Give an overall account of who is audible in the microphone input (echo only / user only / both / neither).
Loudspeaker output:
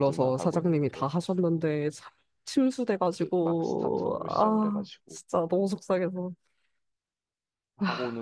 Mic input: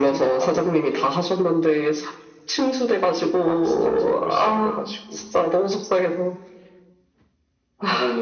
echo only